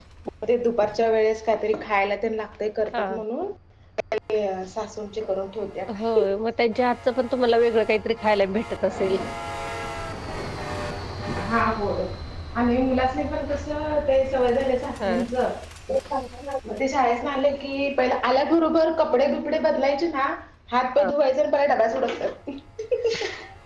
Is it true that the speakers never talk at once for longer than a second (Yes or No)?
Yes